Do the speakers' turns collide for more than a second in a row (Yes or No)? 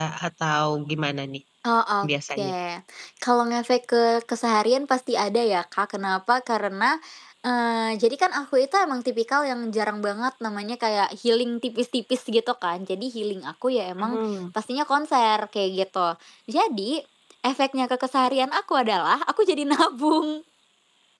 No